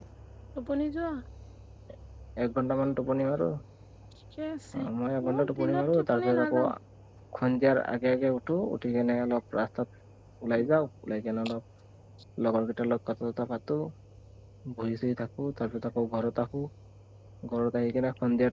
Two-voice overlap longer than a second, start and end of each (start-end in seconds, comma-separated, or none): 5.3-6.6